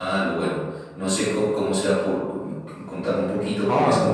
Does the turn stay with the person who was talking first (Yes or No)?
No